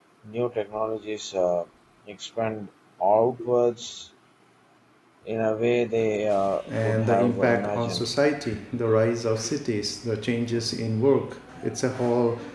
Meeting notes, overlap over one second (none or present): present